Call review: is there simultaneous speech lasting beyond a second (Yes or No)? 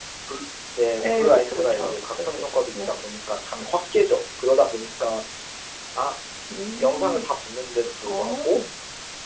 Yes